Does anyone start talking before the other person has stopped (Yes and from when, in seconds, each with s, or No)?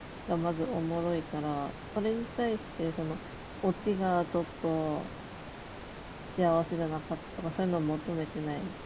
No